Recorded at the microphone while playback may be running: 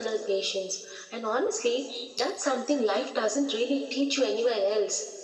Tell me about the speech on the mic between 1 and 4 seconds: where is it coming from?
echo only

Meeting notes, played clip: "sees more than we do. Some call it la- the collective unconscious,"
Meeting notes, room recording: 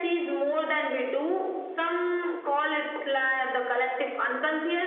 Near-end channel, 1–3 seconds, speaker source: echo only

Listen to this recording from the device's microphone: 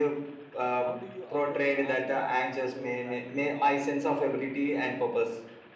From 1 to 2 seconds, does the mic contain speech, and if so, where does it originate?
both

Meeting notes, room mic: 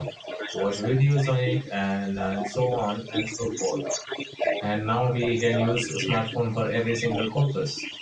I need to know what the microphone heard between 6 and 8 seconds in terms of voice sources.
both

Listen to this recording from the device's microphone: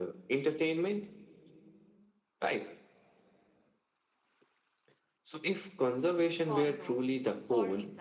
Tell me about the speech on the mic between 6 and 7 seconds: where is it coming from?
both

